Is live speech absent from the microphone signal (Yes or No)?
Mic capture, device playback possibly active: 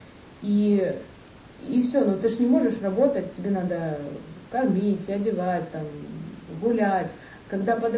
Yes